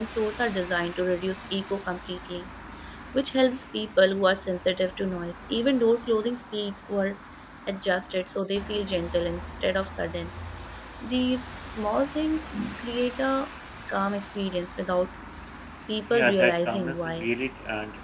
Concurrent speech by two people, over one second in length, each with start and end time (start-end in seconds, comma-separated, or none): 16.1-17.3